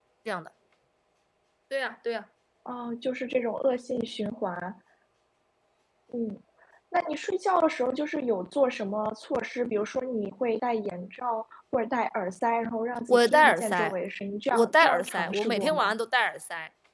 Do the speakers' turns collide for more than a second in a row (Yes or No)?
Yes